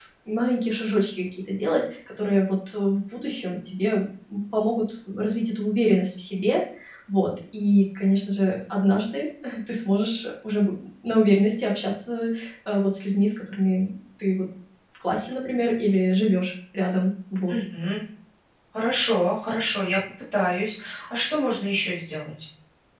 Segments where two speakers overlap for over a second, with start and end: none

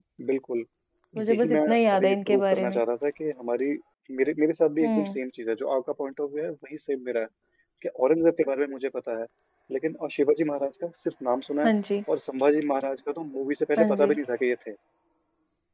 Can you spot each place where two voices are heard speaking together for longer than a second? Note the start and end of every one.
1.2-2.8

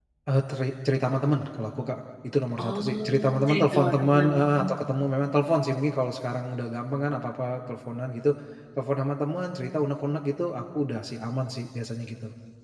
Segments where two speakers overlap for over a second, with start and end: 2.6-4.7

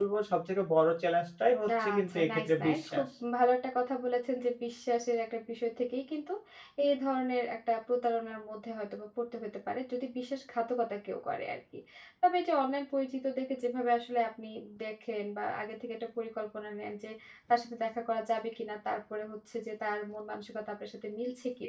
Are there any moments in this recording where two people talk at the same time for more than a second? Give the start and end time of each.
1.8-3.0

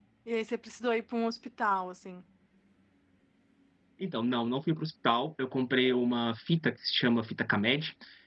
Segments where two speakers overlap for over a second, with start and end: none

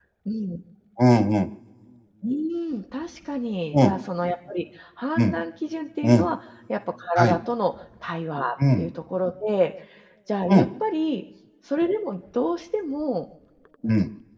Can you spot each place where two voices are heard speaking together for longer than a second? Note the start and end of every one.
none

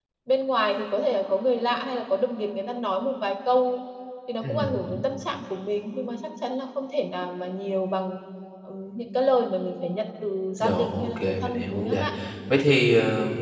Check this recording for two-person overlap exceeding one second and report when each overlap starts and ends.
10.6-12.1

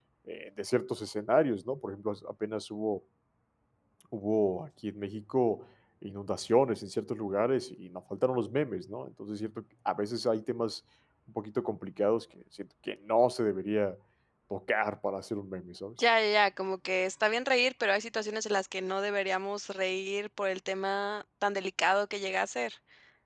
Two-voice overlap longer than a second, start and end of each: none

